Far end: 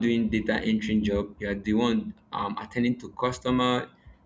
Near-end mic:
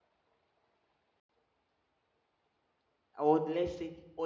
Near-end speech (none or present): present